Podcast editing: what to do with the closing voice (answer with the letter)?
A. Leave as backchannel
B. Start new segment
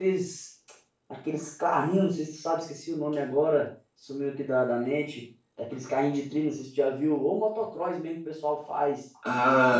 B